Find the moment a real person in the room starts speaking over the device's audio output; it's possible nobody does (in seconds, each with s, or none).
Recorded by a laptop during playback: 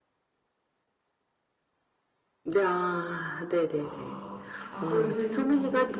3.8 s